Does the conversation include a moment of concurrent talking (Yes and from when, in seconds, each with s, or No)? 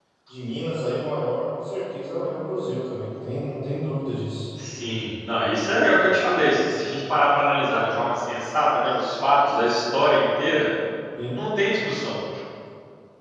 No